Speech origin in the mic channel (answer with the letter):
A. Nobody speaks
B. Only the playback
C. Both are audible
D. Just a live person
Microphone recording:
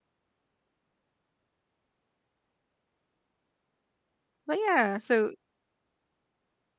D